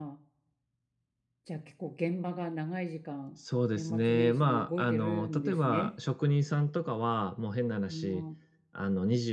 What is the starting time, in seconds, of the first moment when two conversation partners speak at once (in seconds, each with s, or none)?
3.8 s